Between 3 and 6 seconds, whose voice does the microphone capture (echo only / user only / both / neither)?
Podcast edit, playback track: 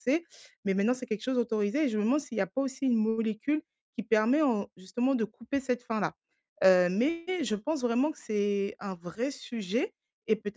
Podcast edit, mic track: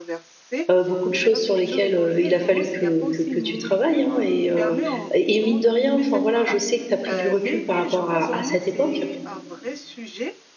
both